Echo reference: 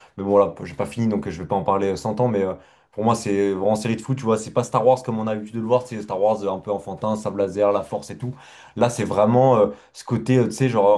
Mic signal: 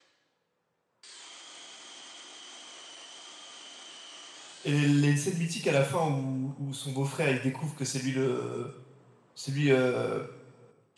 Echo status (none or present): none